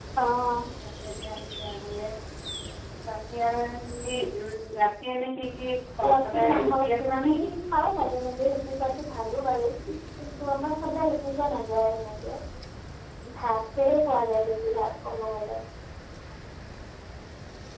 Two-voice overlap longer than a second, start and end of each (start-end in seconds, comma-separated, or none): 6.0-7.5